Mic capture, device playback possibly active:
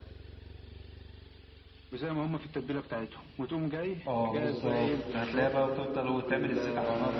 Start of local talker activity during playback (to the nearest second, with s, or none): 4 s